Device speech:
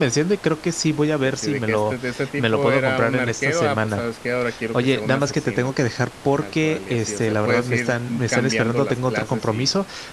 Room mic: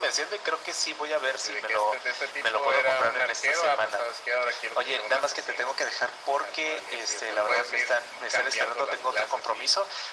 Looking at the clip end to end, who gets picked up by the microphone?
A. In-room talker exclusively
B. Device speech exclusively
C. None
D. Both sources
B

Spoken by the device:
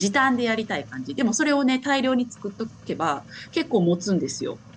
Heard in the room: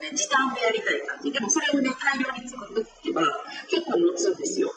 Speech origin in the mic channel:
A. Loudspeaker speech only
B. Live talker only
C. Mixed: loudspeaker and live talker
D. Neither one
A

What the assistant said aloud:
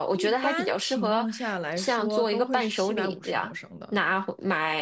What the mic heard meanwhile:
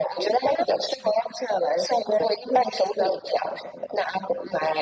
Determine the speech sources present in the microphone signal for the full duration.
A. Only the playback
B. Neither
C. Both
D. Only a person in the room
A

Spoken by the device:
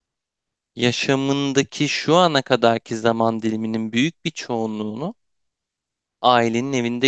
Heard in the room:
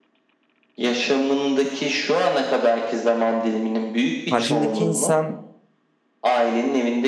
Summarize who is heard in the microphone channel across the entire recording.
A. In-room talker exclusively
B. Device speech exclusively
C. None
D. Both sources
D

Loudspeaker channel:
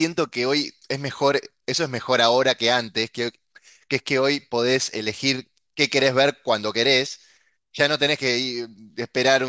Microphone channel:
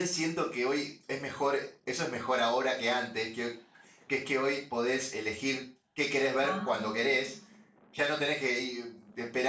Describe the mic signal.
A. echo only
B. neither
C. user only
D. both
D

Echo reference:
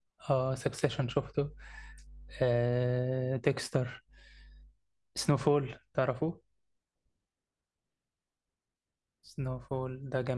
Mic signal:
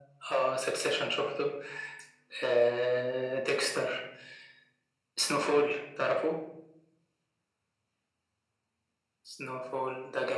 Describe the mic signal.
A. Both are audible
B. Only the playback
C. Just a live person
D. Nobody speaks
B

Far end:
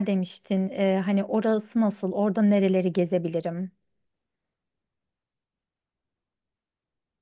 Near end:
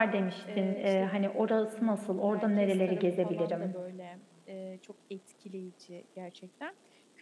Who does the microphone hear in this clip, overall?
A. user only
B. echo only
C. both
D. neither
C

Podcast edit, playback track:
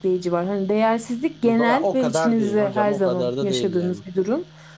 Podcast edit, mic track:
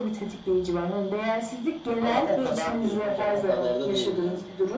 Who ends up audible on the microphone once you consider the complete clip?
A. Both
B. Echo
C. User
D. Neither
B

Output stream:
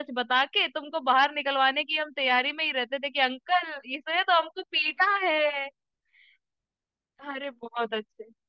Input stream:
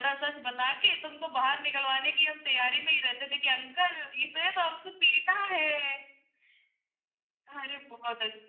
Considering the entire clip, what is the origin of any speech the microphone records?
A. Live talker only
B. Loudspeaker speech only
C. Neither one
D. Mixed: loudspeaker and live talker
B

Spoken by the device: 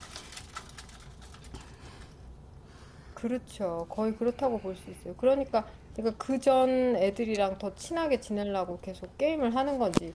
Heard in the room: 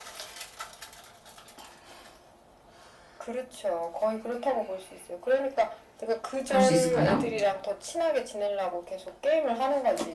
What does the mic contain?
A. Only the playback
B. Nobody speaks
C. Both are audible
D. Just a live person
C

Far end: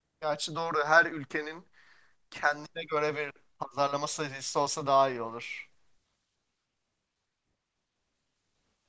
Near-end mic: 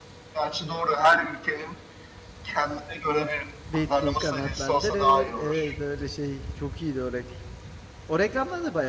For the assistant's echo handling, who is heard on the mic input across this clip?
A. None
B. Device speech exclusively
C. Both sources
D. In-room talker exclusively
C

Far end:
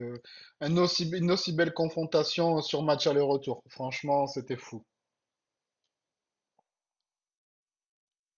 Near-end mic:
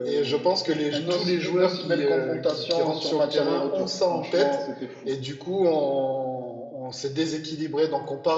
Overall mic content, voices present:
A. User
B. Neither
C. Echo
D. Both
D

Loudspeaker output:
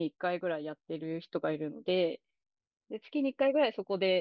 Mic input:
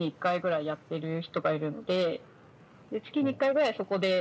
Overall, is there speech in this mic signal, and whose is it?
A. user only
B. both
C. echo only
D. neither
B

